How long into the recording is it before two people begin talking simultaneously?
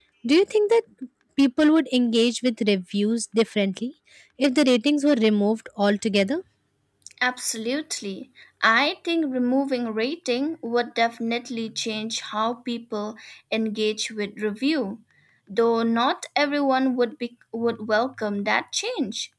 none

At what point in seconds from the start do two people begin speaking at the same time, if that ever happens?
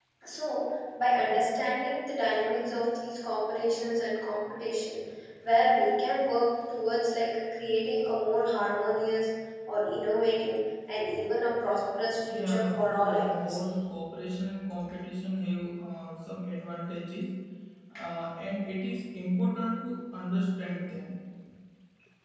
12.3 s

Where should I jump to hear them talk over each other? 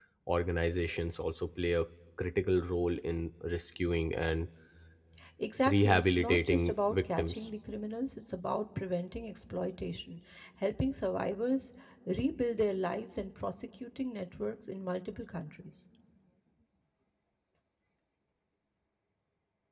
5.7 s

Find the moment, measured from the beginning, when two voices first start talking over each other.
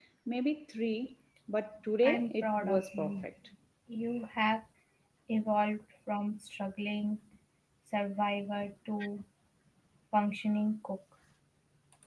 2.0 s

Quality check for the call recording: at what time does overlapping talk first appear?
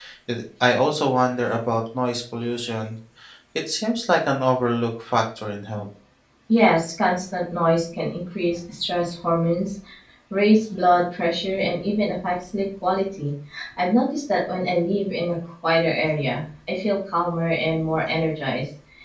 none

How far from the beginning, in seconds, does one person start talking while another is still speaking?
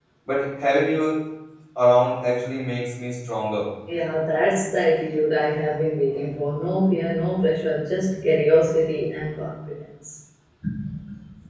none

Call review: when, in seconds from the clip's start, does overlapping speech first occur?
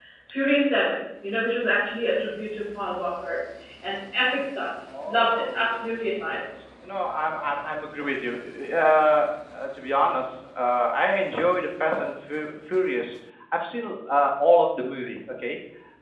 4.9 s

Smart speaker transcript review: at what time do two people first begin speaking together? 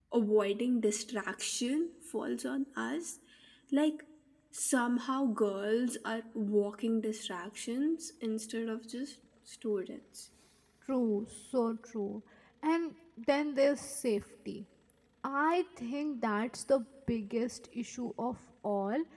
none

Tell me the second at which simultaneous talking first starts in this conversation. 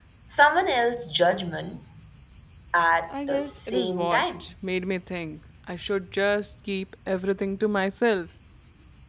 3.1 s

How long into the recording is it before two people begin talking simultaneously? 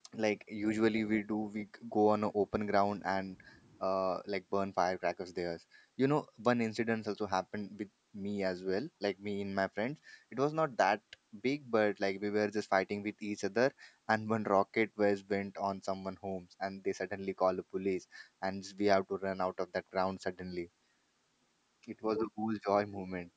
none

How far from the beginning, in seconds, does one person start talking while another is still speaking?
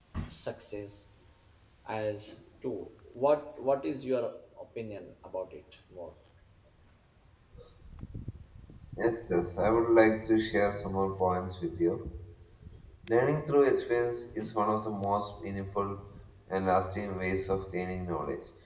none

